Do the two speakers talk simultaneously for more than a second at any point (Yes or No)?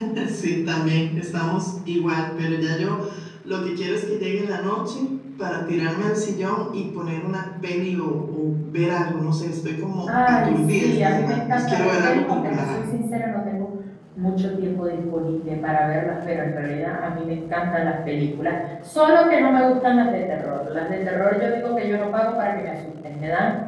Yes